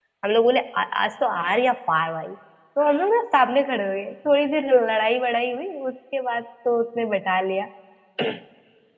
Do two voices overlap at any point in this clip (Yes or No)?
No